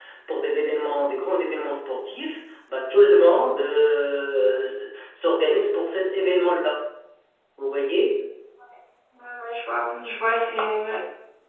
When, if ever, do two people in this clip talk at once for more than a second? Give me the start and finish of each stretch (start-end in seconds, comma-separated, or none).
none